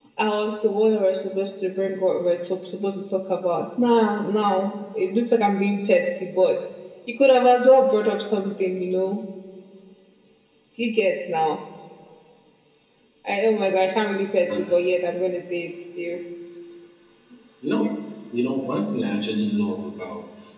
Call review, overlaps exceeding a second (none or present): none